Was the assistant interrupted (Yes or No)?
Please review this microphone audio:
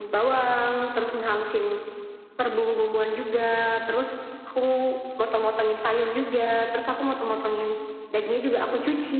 No